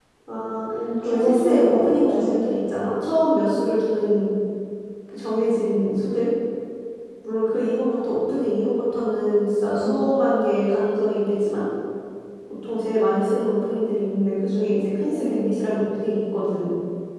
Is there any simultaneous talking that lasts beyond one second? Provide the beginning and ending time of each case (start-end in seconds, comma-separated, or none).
1.0-2.4